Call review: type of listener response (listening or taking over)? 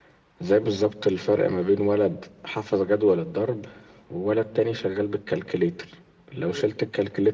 listening